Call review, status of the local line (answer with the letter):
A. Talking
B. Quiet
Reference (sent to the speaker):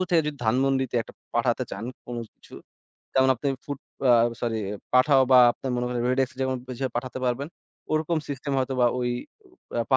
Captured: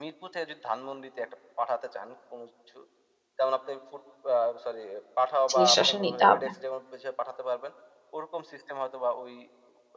A